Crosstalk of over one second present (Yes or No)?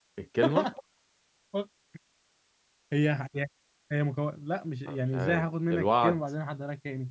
Yes